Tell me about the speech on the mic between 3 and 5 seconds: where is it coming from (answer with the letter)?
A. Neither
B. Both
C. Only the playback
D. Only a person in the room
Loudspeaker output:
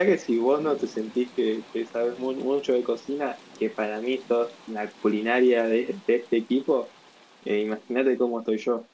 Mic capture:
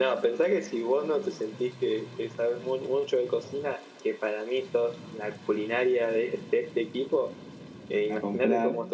C